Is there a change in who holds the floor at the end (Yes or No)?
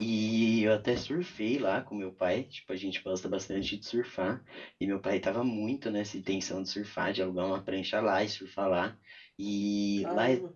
No